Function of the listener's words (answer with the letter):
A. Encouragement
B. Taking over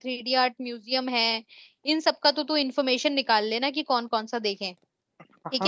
B